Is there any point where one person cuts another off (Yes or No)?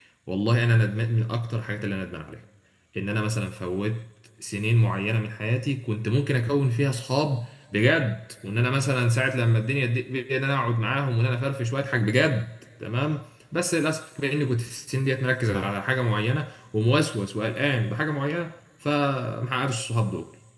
No